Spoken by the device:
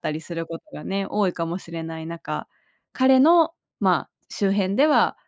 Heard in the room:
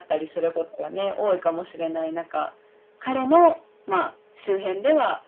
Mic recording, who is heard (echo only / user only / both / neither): echo only